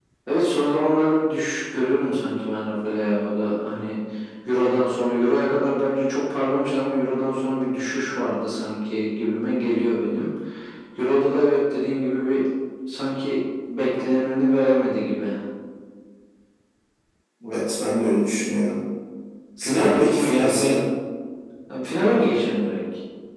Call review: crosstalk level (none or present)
present